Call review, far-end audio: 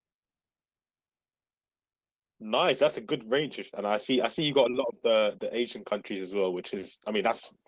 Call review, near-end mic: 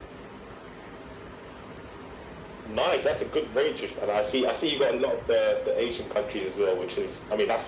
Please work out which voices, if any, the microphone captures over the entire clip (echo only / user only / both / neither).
echo only